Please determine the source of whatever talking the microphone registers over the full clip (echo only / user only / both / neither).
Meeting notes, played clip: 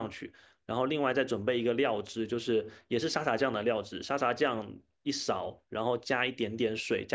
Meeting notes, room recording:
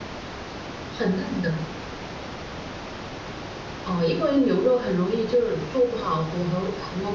user only